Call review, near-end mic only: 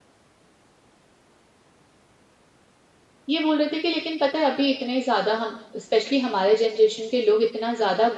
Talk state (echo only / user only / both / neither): user only